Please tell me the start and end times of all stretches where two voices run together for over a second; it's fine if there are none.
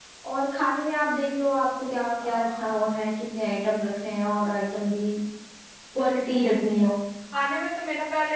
none

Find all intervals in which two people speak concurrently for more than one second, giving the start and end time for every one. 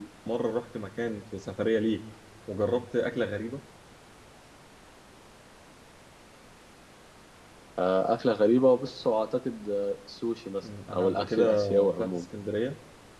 10.9-12.2

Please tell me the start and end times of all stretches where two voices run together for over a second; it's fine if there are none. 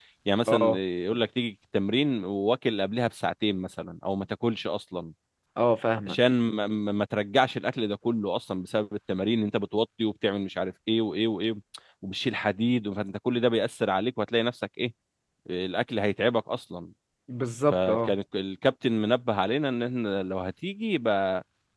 none

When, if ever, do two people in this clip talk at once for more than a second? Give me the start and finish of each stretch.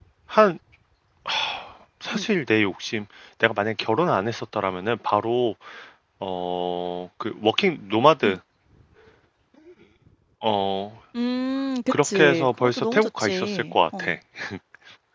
11.9-14.2

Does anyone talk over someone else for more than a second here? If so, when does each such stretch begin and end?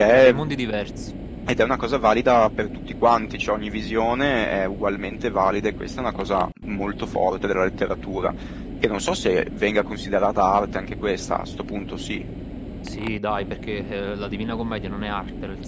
none

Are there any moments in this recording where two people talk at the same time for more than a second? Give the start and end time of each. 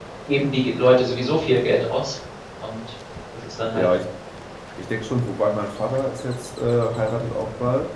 none

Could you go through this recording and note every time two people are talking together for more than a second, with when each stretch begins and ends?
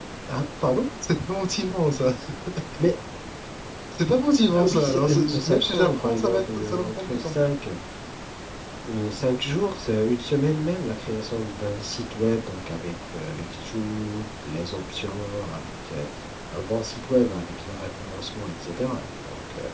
4.6-7.3

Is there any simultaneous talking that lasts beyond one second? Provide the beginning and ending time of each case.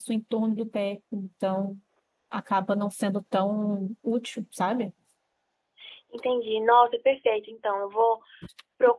none

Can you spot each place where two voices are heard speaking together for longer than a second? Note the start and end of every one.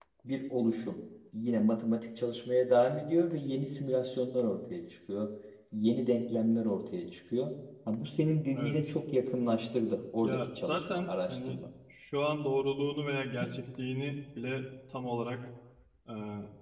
10.2-11.6

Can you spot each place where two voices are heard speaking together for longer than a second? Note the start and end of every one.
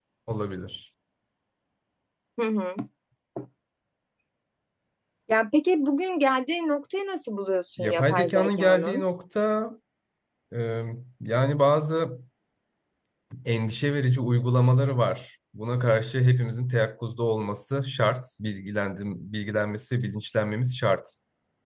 7.8-9.0

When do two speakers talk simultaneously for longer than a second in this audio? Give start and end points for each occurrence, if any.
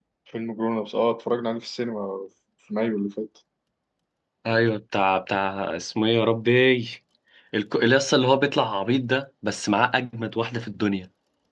none

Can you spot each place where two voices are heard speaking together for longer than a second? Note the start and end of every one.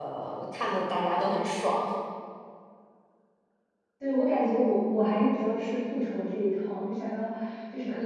none

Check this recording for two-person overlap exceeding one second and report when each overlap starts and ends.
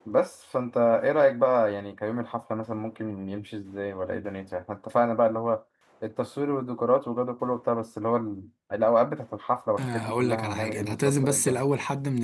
9.8-11.6

